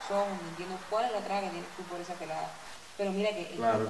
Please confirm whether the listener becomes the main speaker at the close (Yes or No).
No